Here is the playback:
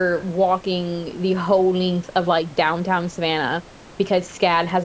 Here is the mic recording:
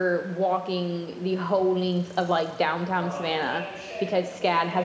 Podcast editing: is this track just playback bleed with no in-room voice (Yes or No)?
No